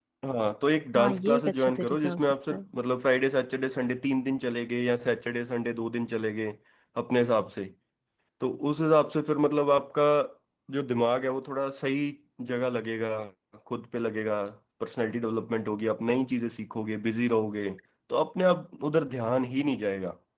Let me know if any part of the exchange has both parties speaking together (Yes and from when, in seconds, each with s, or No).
Yes, from 1.0 s